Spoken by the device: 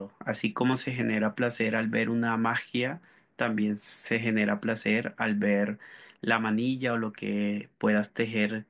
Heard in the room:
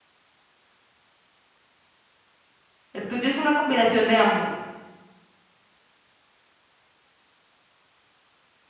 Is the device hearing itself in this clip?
No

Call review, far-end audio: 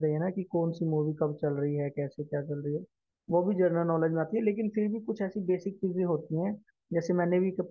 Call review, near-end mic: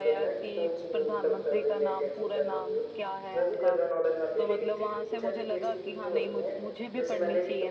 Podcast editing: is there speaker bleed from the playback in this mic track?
Yes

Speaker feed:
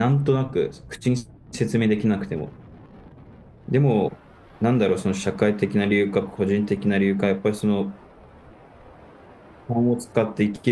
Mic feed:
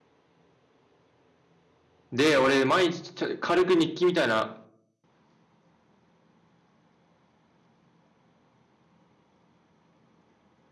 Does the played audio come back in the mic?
No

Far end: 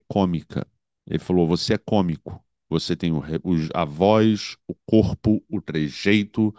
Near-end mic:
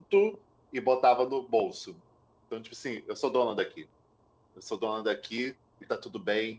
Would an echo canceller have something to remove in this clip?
No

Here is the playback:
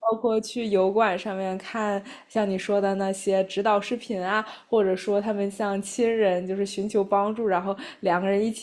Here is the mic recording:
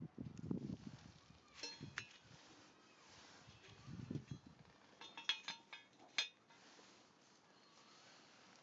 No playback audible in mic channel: Yes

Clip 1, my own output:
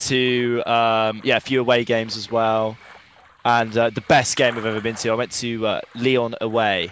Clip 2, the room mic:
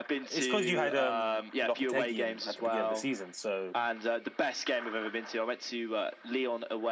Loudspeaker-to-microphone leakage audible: Yes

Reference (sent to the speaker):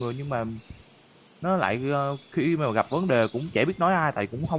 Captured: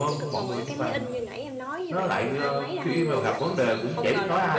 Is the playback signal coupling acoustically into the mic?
Yes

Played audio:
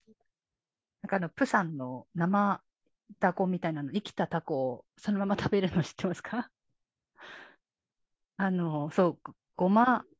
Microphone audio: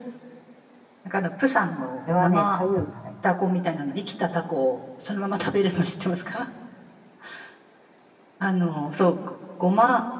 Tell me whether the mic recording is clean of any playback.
No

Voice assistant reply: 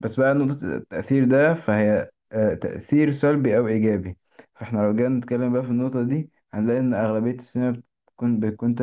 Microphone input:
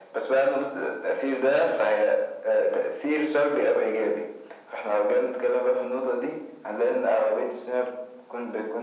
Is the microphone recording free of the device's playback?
No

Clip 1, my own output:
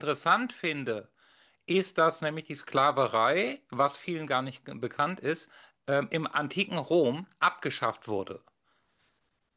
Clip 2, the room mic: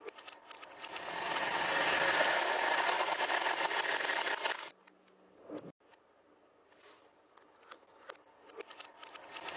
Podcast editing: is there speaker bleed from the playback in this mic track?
No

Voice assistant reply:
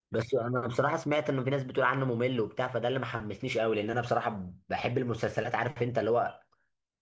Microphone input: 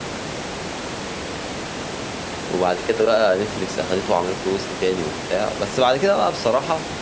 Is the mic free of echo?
Yes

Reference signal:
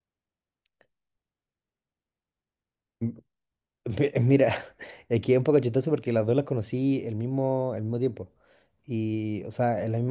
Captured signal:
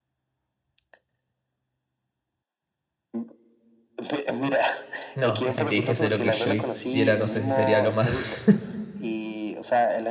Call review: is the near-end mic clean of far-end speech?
No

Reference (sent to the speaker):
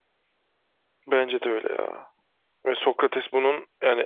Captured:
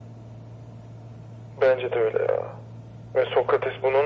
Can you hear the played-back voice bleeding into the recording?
Yes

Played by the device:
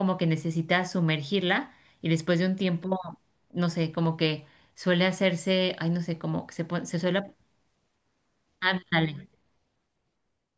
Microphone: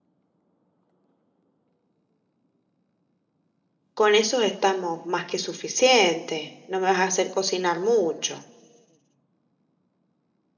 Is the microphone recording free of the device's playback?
Yes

